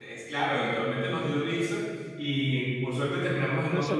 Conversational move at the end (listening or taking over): taking over